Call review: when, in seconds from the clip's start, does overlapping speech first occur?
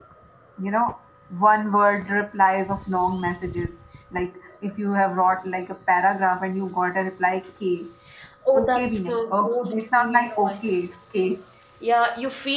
8.6 s

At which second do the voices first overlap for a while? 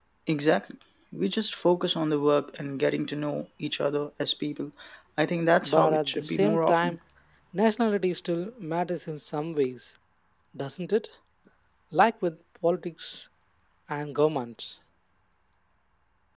5.6 s

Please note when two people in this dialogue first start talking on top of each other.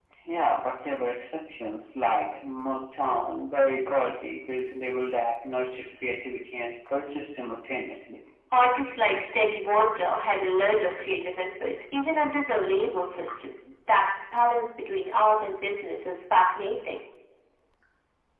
none

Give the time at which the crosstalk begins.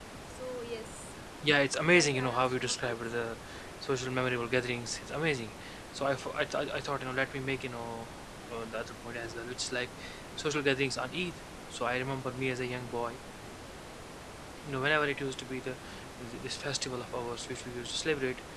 1.7 s

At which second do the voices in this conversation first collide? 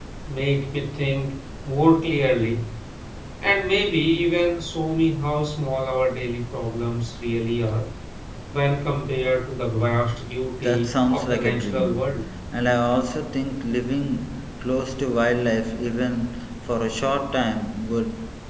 10.6 s

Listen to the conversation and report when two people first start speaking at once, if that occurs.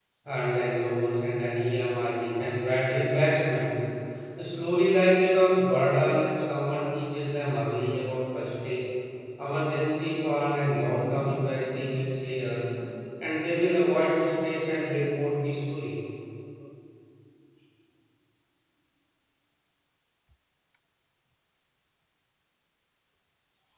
none

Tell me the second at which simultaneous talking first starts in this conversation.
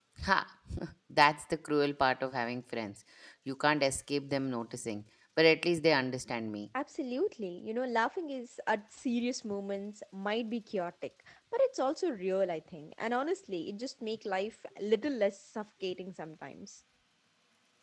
none

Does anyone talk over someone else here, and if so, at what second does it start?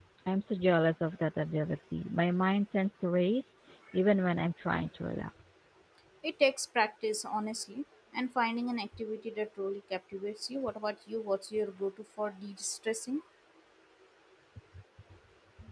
none

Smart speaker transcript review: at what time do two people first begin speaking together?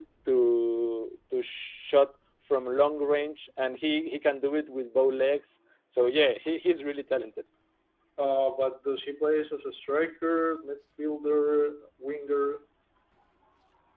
none

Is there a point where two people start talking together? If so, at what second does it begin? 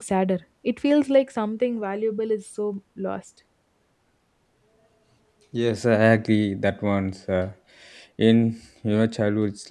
none

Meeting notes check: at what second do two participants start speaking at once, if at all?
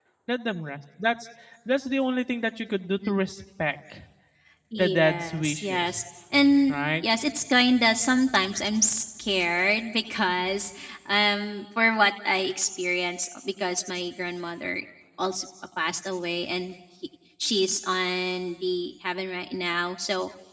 4.8 s

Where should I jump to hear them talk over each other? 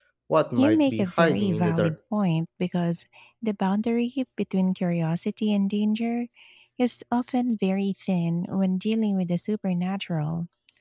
0.6 s

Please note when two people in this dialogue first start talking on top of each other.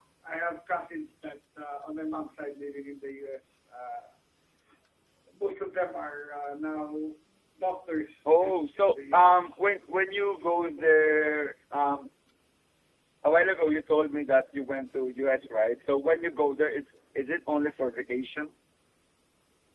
8.4 s

